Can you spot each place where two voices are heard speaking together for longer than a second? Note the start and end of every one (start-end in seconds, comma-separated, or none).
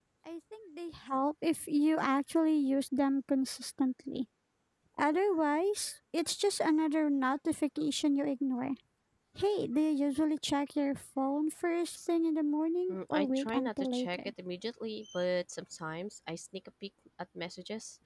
12.9-14.2